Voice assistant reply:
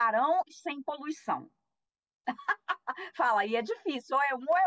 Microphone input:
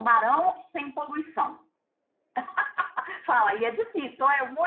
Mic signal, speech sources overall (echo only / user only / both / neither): echo only